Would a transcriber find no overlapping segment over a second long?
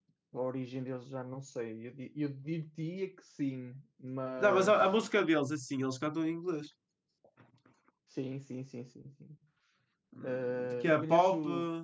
No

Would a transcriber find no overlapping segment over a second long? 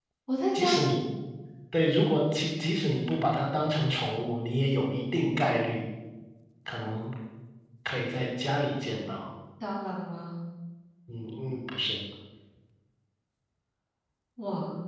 Yes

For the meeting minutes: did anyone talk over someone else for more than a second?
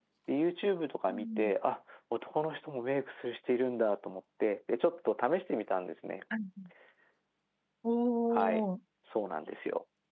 No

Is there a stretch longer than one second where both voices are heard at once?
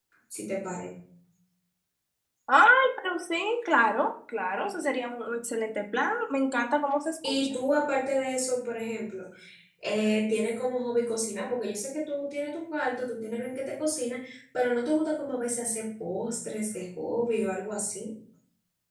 No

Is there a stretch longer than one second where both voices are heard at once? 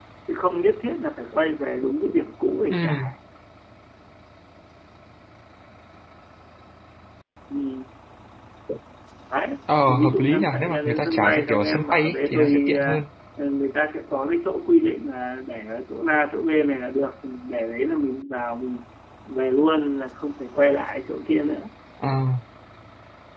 Yes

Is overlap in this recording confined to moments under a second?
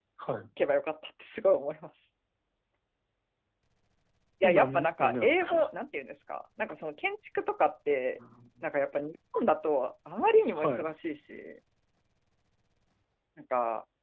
No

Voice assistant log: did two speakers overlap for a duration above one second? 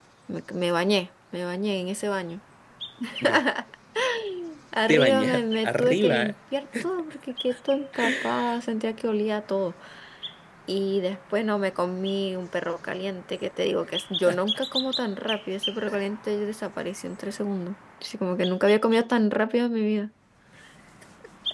Yes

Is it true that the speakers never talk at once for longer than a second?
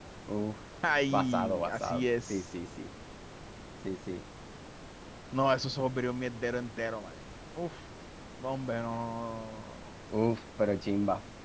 No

